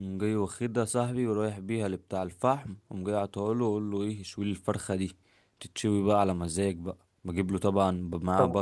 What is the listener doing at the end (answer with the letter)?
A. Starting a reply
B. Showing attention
B